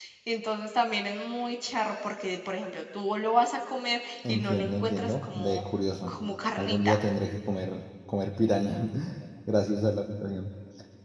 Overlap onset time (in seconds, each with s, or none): 4.3 s